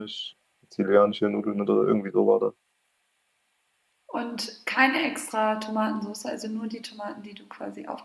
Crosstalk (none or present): none